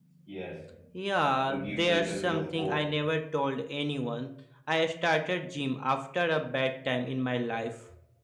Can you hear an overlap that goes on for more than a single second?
Yes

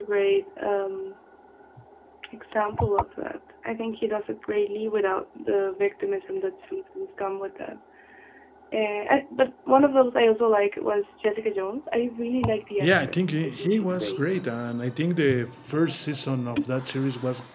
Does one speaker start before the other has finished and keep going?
Yes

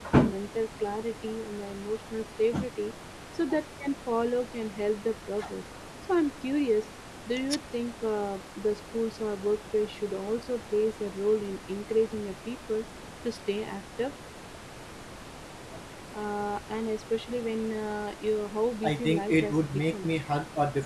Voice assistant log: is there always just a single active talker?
No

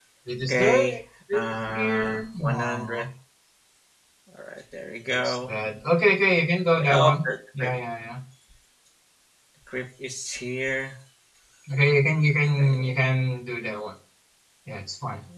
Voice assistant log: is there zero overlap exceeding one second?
No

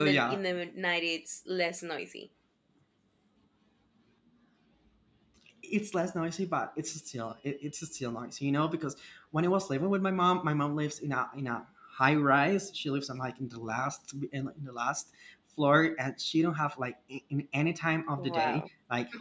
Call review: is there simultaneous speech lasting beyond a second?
No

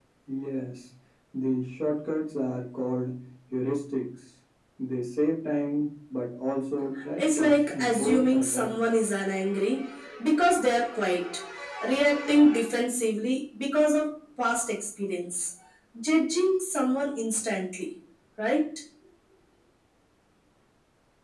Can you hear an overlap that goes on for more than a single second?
Yes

